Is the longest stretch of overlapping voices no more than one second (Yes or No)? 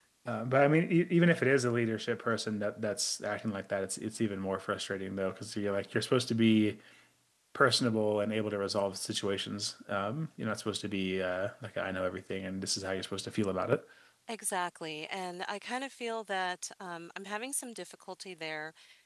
Yes